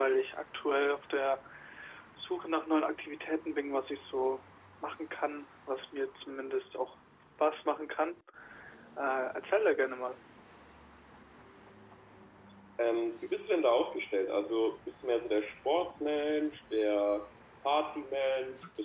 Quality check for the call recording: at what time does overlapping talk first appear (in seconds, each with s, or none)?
none